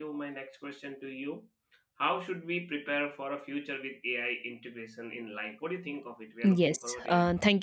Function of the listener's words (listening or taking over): taking over